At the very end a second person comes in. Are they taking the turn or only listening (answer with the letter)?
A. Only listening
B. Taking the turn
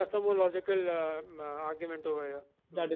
B